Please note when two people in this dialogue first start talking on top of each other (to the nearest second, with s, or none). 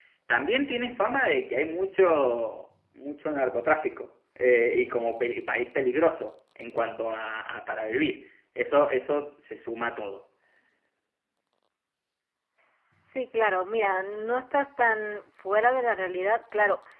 none